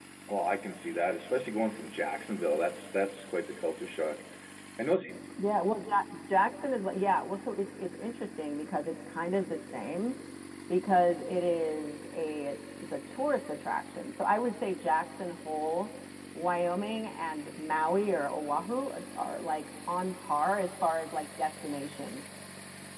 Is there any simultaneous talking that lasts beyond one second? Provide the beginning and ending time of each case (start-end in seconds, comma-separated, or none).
none